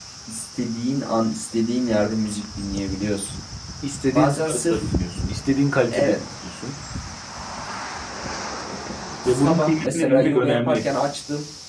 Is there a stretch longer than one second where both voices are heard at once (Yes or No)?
Yes